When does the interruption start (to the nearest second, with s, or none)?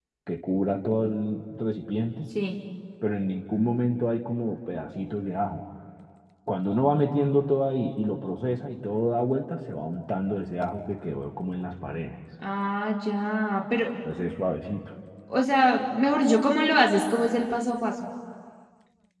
none